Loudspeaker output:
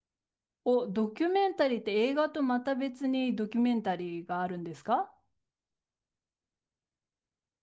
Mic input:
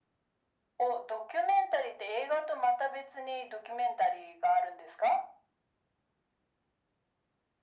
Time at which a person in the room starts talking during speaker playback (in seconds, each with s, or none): none